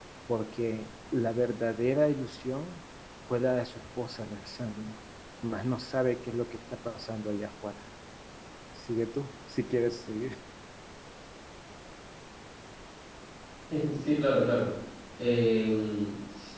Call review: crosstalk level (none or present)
none